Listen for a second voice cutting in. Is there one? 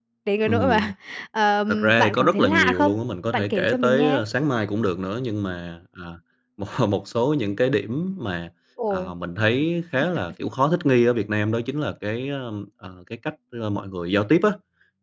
Yes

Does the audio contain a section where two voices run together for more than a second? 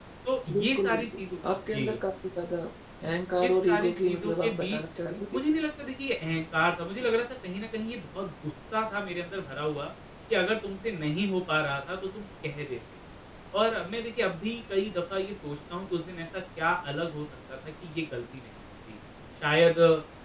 Yes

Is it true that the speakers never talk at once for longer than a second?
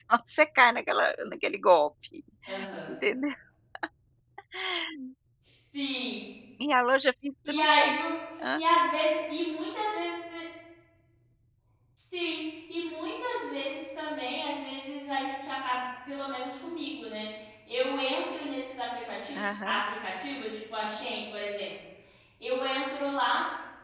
Yes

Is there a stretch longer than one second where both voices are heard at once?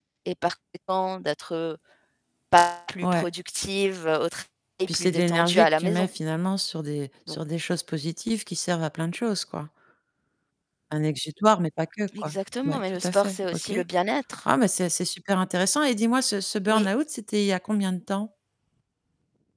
Yes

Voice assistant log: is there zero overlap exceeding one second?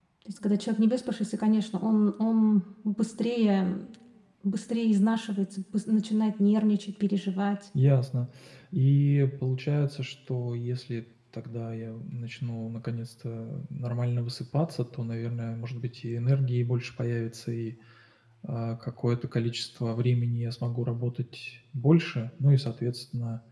Yes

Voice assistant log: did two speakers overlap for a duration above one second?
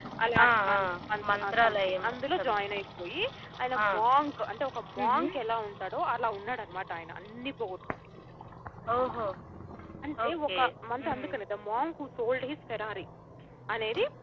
Yes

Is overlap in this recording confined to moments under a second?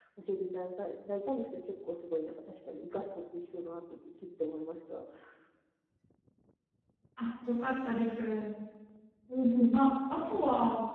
Yes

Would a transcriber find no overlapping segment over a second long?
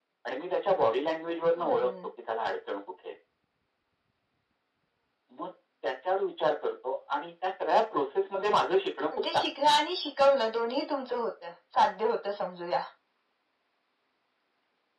Yes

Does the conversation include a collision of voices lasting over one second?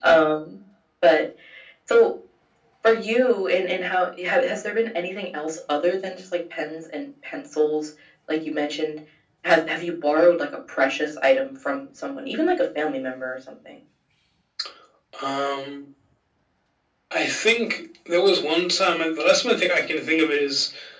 No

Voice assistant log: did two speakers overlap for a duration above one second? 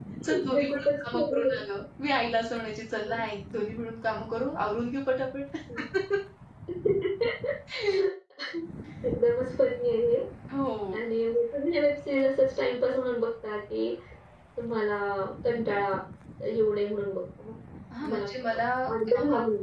Yes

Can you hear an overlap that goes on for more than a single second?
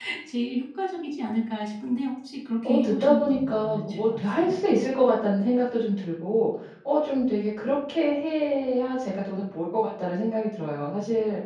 Yes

